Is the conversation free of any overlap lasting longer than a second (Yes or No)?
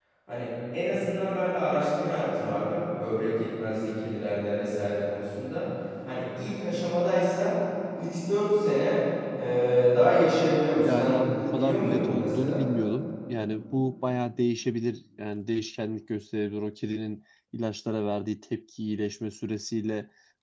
No